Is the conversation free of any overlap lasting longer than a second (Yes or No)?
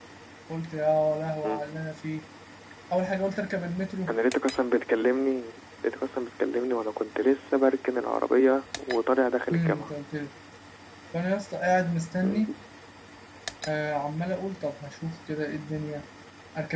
Yes